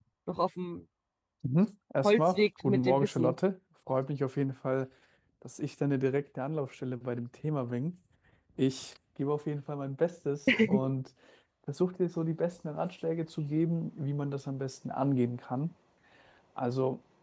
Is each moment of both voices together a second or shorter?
No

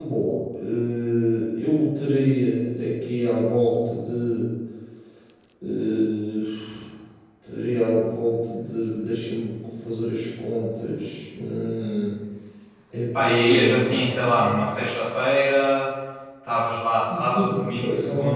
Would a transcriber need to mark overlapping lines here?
Yes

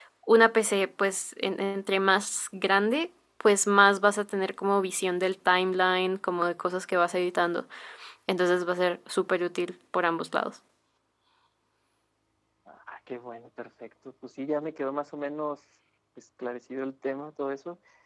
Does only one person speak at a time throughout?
Yes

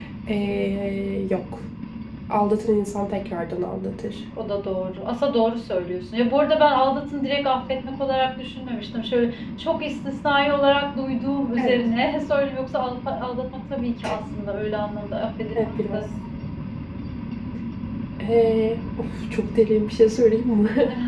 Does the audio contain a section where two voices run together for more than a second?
No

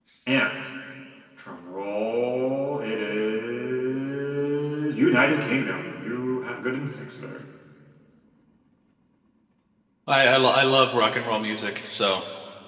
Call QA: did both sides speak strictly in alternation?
Yes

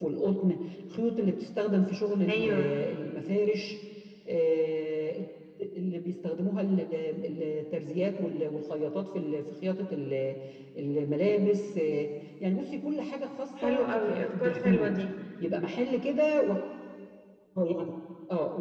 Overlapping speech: Yes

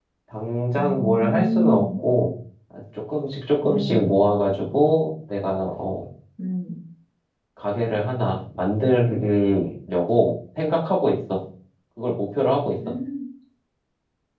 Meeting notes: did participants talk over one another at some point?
Yes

